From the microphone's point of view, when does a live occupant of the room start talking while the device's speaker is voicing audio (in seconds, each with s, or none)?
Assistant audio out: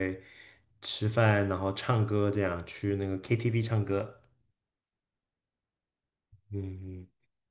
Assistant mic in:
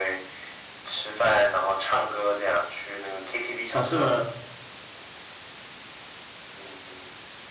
3.7 s